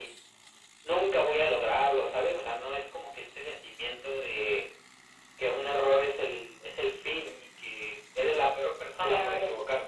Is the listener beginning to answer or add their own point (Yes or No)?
Yes